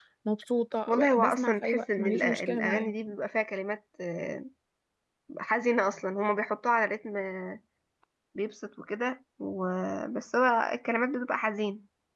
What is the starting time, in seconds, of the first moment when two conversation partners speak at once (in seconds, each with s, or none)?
0.9 s